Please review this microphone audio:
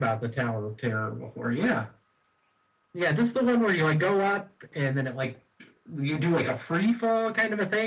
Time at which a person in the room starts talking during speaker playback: none

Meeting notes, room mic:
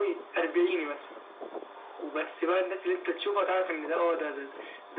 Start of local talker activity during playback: none

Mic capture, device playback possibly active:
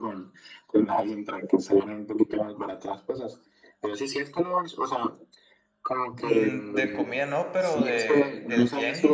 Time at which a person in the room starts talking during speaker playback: 6.2 s

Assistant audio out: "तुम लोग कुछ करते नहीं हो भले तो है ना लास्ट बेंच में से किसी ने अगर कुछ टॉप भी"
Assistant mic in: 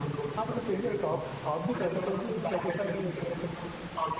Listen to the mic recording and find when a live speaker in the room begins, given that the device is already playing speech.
0.4 s

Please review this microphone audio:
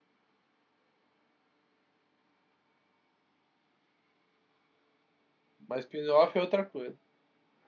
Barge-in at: 5.6 s

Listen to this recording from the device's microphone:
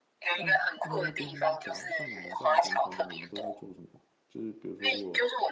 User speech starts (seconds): 0.3 s

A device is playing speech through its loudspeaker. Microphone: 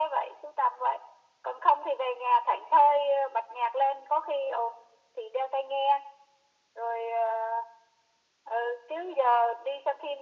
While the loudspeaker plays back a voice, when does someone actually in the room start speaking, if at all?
none

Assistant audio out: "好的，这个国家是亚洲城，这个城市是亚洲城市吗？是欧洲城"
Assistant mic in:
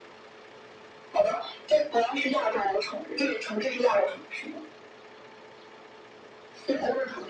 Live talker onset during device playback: none

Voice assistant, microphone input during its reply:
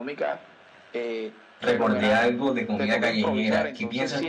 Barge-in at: 1.6 s

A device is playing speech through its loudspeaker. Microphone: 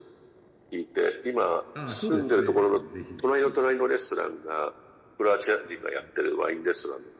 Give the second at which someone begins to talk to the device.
1.7 s

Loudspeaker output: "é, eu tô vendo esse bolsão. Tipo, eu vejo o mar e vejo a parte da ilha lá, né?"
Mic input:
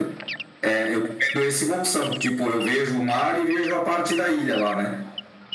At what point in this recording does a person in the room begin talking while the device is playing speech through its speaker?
none

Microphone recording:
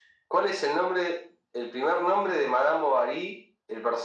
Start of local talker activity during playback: none

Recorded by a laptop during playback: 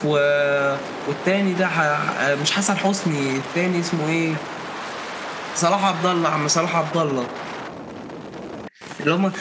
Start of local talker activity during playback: none

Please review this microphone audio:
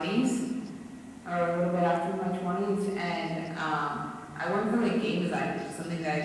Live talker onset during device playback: none

